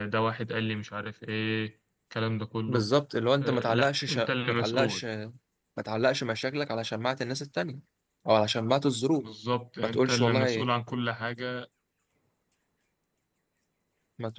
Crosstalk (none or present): present